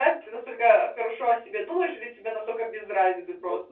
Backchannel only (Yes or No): No